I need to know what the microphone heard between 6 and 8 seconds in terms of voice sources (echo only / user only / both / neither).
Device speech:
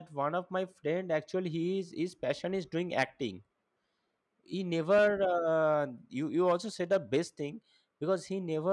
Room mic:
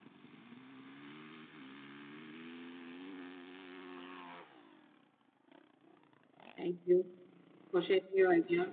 user only